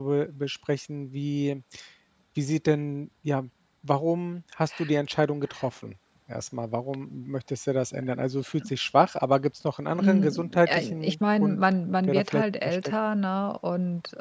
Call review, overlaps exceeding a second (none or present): present